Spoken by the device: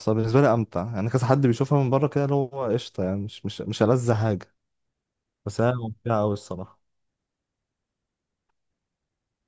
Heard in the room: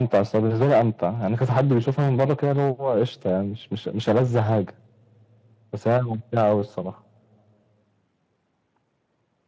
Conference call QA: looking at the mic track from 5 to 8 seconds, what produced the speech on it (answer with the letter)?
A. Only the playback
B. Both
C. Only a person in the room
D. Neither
A